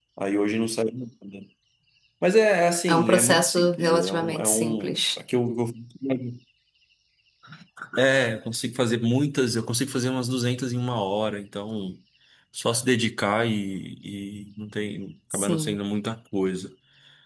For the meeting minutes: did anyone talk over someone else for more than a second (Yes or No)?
Yes